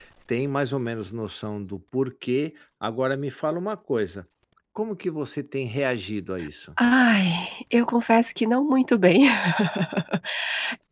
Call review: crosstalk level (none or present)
none